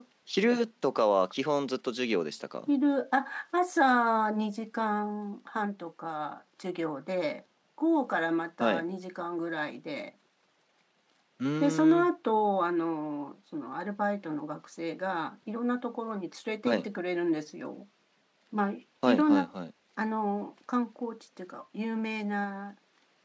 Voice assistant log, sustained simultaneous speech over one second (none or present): none